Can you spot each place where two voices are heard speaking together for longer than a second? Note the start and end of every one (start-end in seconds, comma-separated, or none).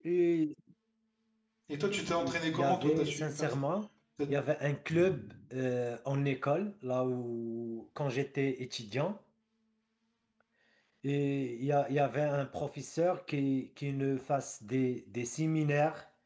2.2-3.5